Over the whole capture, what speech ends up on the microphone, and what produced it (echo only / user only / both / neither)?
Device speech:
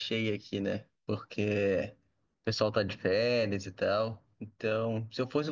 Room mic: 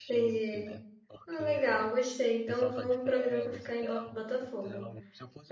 both